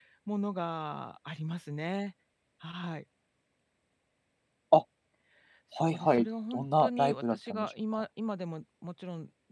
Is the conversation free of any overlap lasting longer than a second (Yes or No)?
No